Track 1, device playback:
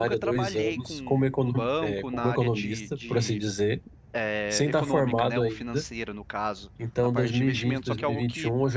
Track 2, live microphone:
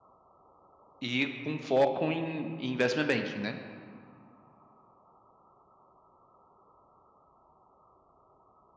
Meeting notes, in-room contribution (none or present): present